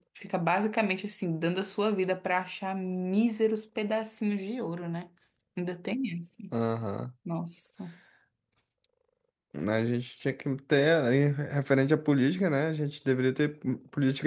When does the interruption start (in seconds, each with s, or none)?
none